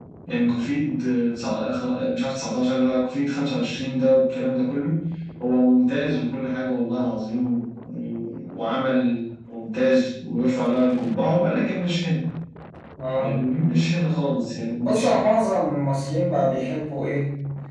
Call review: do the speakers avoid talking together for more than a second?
Yes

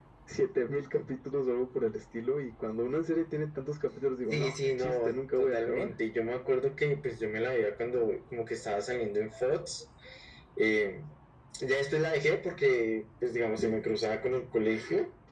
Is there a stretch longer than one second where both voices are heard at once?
Yes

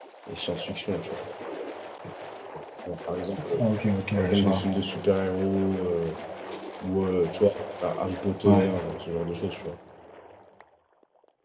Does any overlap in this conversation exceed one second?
No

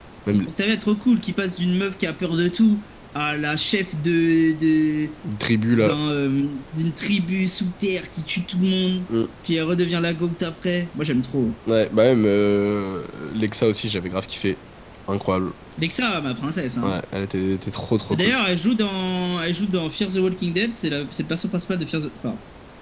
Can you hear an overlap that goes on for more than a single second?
No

